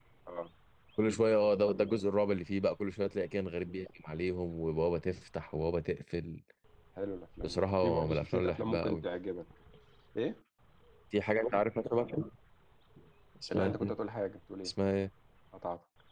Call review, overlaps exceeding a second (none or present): present